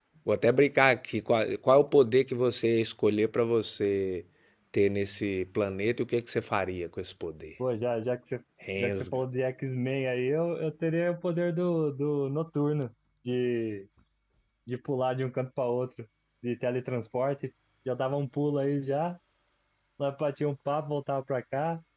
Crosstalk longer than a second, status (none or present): none